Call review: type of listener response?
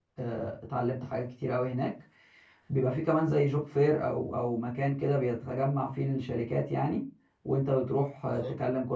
listening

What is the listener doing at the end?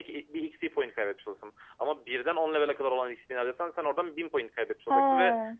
listening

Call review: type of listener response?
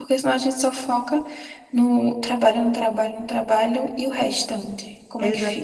taking over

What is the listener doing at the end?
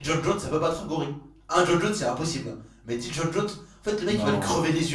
listening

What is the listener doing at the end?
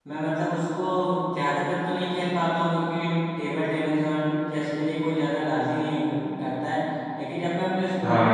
listening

